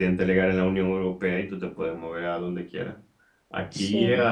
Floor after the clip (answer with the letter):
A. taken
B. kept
B